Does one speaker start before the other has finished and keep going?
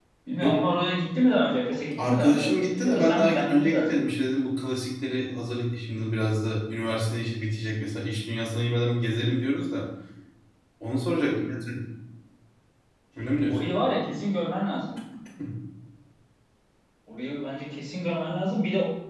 Yes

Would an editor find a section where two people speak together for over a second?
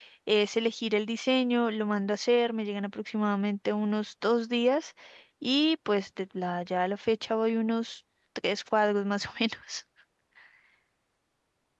No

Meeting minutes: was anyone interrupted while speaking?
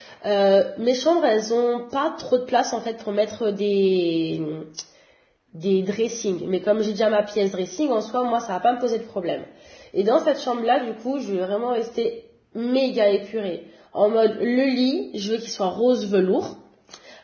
No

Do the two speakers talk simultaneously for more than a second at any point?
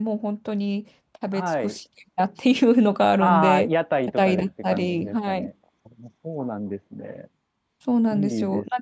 Yes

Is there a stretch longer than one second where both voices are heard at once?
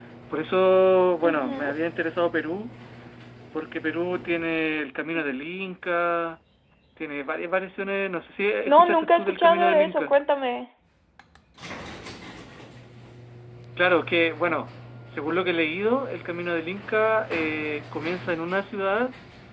Yes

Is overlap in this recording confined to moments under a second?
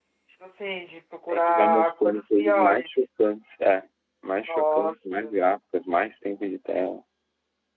No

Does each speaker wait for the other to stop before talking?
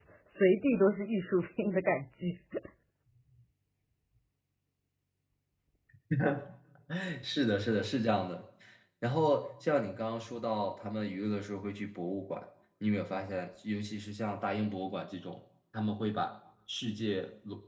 Yes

